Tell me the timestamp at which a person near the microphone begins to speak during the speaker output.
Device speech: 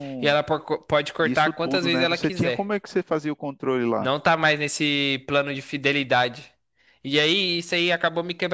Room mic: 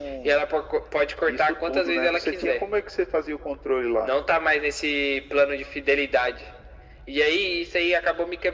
none

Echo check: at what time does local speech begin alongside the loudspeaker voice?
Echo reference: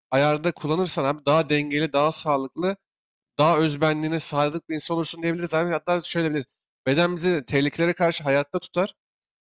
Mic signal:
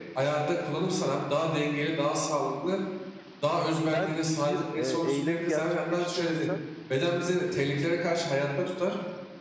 3.9 s

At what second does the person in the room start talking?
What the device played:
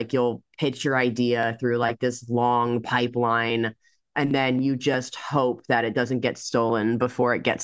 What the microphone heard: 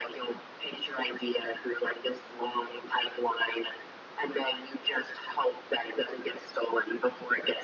none

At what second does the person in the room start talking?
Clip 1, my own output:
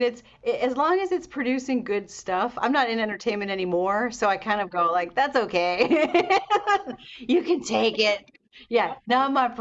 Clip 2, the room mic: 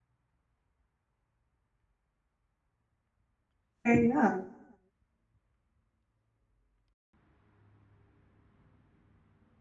3.9 s

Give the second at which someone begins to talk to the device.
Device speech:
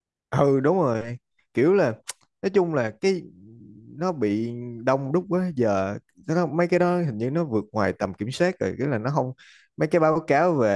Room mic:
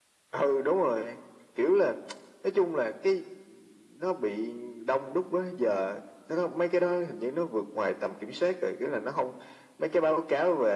none

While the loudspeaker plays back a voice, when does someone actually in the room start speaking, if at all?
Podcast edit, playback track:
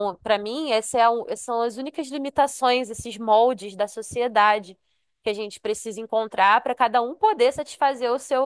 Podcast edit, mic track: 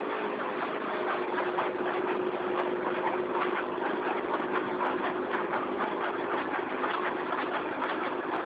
none

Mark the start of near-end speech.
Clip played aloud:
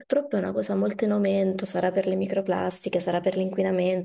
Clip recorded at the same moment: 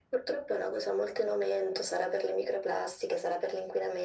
none

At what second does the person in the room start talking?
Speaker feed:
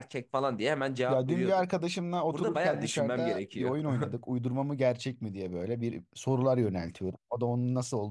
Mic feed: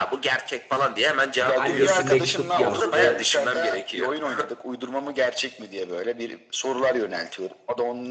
1.3 s

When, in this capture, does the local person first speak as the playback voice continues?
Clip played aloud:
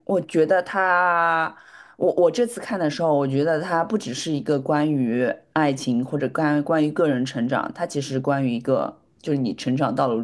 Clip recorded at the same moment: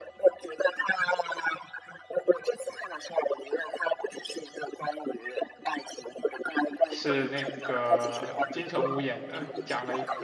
6.9 s

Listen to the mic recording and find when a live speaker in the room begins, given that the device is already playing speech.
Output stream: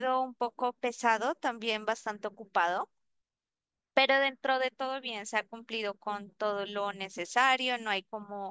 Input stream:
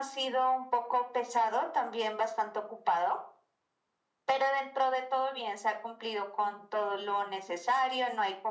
none

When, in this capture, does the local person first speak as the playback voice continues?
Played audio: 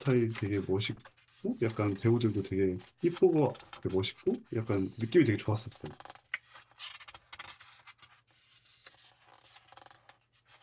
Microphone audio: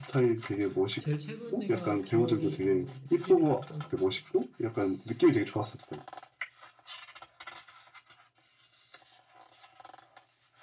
1.0 s

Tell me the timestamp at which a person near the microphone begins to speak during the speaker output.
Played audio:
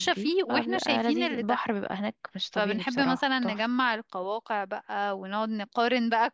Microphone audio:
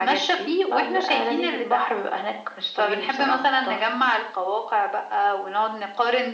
none

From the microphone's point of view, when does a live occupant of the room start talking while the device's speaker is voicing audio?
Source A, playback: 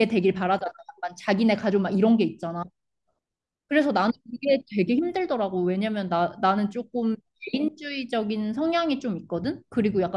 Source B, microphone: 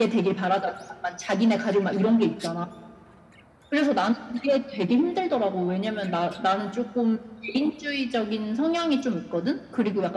none

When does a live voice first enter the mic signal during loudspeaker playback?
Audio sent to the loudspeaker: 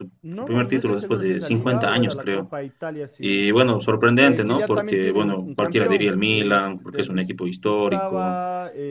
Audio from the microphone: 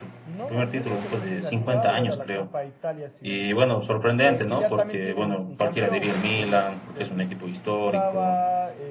none

